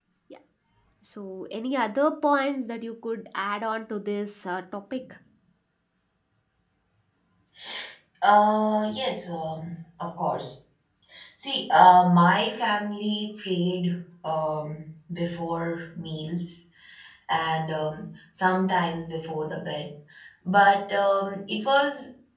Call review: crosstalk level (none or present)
none